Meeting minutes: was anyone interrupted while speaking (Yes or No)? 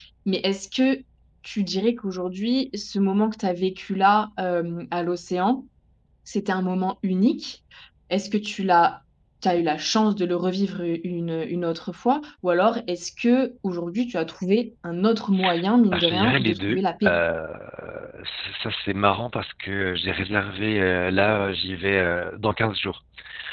Yes